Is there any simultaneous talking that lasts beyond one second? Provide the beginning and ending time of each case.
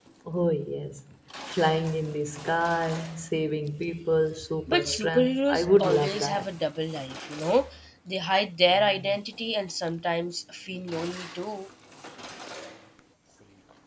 4.7-6.4

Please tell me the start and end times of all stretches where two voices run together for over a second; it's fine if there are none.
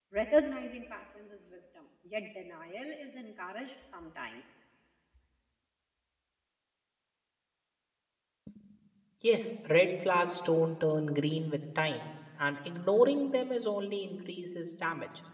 none

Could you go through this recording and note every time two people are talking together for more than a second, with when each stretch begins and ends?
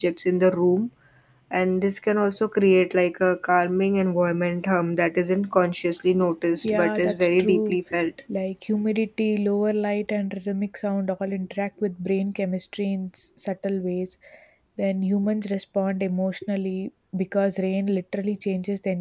6.5-7.8

